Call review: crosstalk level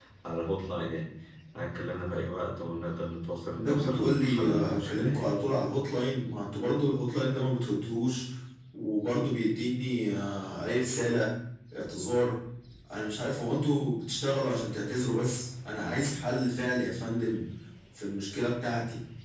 present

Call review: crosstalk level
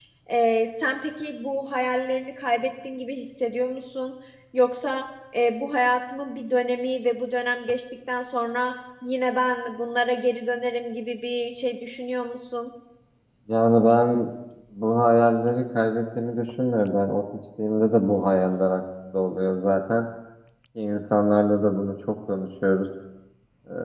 none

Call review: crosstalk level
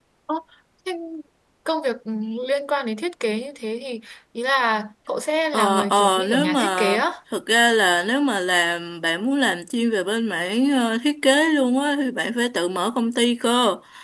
present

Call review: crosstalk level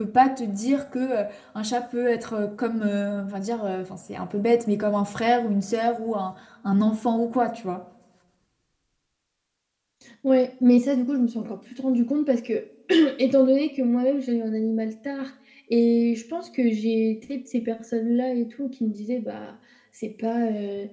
none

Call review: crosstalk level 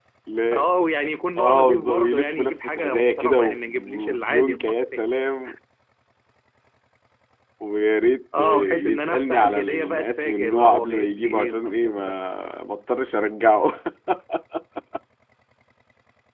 present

